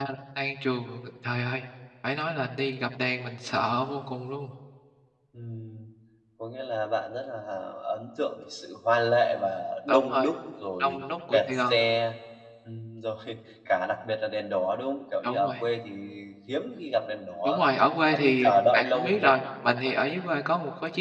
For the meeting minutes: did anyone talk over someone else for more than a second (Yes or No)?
Yes